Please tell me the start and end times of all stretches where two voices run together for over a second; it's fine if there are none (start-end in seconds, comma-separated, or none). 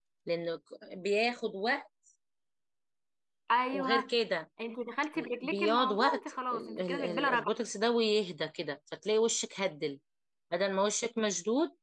5.4-7.5